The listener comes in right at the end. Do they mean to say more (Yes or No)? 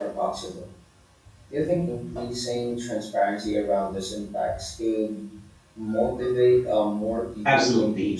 Yes